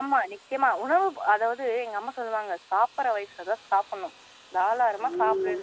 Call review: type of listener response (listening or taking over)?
listening